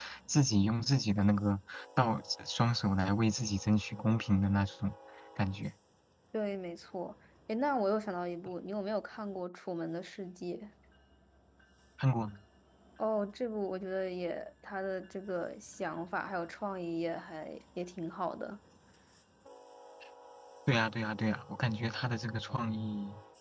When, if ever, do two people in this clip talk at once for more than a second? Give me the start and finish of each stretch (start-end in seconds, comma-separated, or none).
none